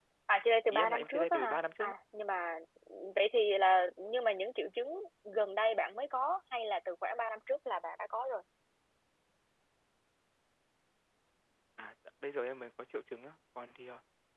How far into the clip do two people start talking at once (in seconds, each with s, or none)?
0.7 s